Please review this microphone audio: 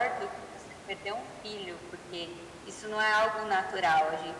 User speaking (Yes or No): No